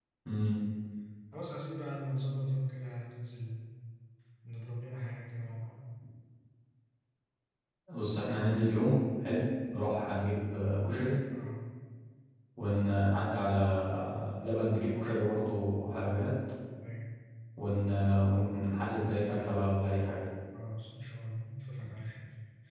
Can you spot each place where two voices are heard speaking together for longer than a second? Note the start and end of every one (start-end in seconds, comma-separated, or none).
none